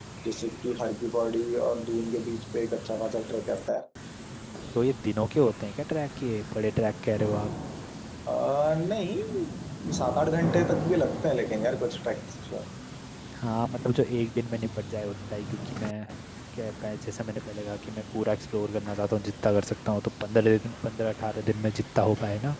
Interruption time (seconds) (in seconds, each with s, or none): none